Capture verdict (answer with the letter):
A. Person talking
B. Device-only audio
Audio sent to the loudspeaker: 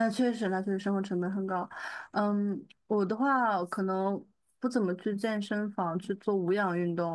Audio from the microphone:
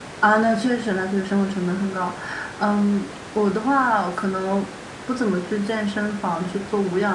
B